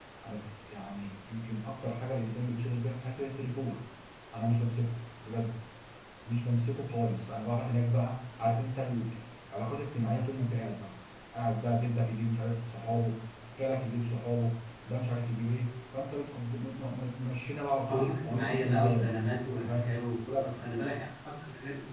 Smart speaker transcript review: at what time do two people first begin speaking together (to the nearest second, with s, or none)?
18 s